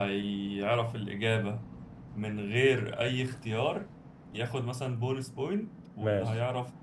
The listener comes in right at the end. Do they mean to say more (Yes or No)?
No